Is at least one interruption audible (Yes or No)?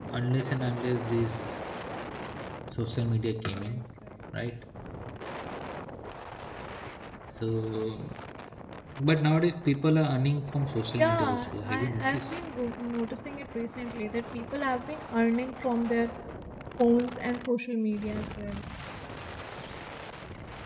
Yes